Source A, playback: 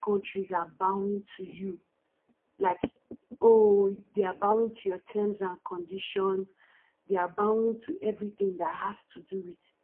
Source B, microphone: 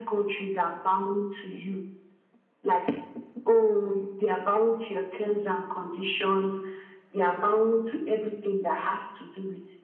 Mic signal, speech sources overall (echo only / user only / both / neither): echo only